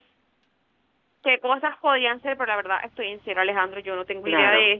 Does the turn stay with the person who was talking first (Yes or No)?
Yes